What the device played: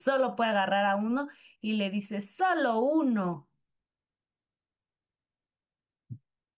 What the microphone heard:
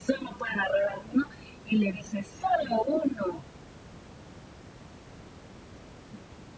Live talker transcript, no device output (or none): none